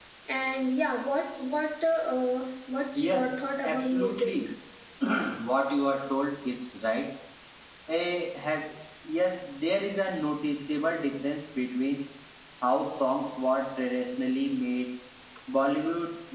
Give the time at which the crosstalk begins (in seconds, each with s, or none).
2.9 s